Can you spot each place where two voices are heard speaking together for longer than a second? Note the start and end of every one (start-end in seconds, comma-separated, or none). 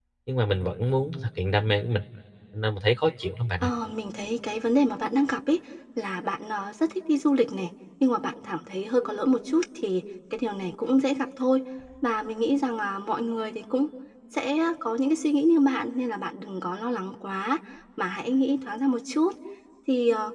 none